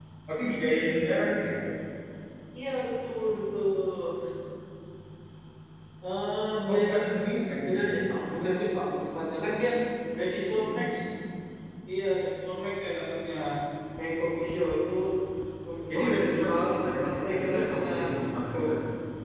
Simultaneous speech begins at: 6.7 s

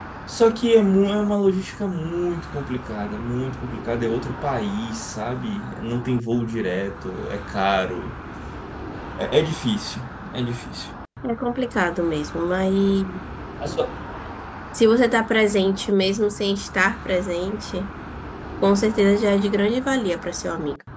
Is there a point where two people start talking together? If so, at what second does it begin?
none

